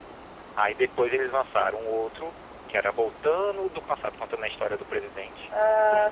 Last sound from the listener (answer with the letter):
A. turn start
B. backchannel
A